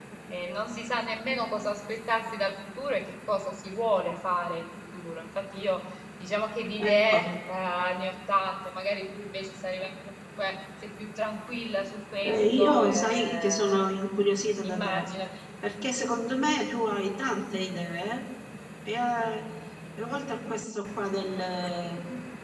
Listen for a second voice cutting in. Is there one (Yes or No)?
Yes